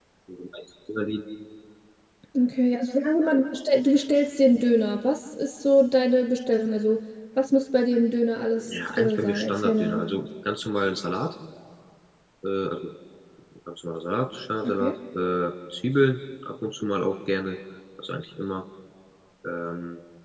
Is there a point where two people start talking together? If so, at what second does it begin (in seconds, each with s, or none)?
8.7 s